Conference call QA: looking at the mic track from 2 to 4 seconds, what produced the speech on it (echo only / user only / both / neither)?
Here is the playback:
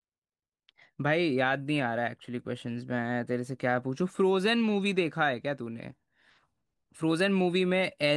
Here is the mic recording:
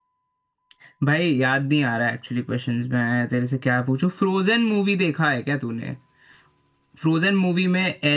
echo only